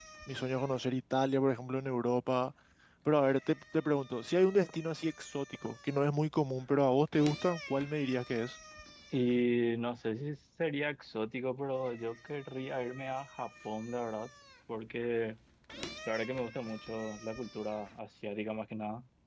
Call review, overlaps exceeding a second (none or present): none